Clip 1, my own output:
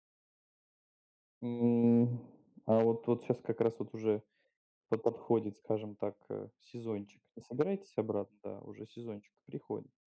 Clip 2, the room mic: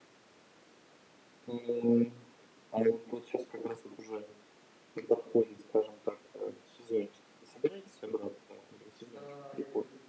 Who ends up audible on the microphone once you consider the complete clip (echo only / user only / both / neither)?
both